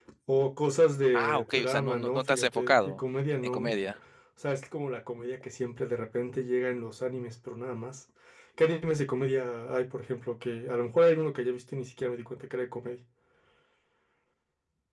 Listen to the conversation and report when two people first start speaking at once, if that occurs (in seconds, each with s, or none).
1.1 s